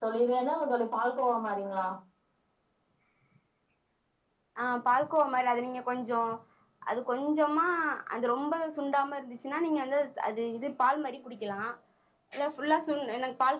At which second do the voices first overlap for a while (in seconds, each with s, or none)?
none